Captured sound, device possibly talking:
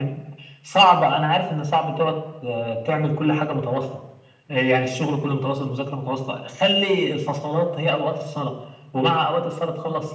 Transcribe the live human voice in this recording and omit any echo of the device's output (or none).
none